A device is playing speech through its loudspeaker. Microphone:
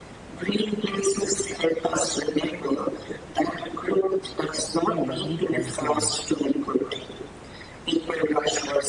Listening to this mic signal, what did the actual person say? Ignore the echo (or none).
What a lovely point you made.